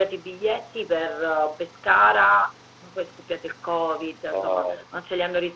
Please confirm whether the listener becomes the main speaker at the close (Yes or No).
No